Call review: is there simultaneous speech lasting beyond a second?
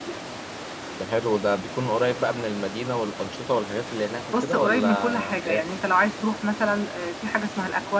Yes, from 4.3 s

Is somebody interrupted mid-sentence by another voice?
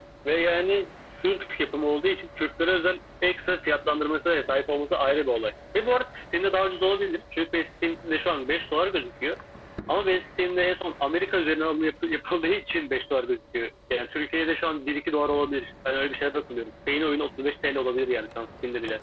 No

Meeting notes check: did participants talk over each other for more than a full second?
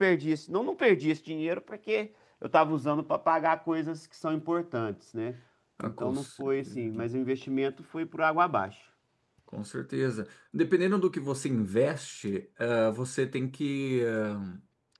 Yes, from 5.8 s

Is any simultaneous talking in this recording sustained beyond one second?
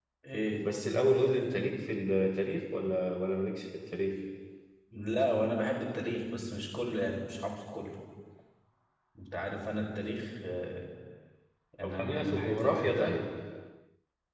Yes, from 11.8 s

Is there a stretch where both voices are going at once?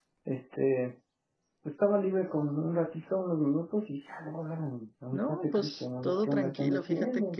Yes, from 5.1 s

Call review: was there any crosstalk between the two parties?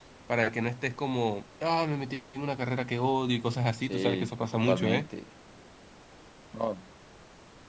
Yes, from 3.8 s

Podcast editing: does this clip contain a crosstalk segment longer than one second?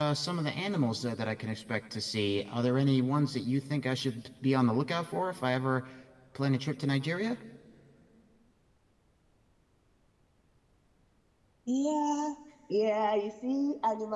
No

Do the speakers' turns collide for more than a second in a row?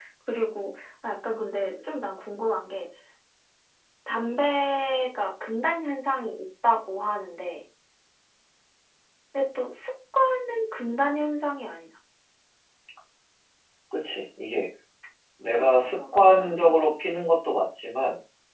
Yes, from 15.5 s

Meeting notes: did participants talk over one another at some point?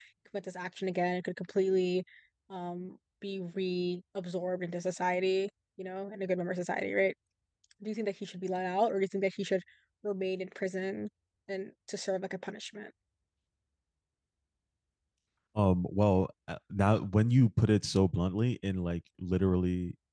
No

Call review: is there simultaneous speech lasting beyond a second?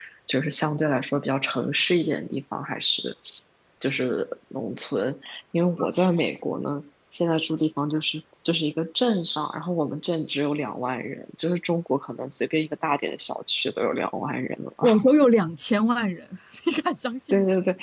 No

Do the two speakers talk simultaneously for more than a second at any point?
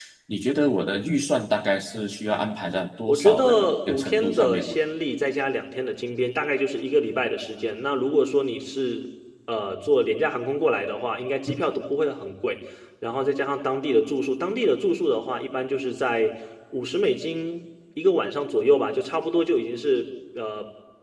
Yes, from 3.1 s

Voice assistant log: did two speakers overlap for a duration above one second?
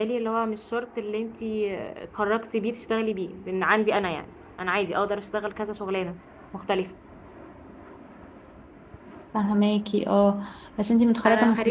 No

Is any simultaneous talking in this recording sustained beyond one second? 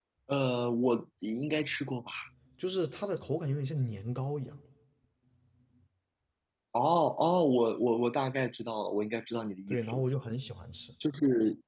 No

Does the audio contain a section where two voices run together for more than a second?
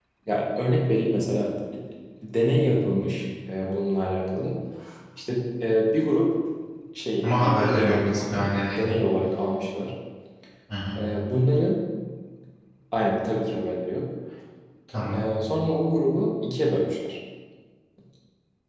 Yes, from 7.2 s

